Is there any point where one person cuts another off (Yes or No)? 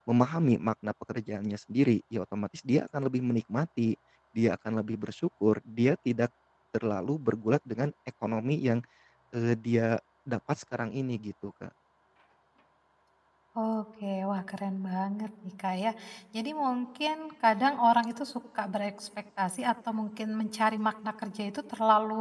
No